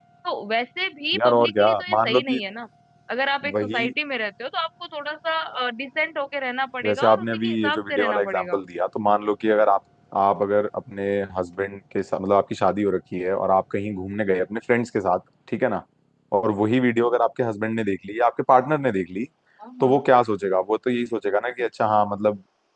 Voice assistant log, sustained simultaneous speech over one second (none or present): present